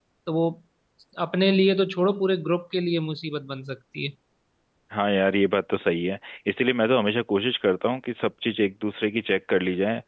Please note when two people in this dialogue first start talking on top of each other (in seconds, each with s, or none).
none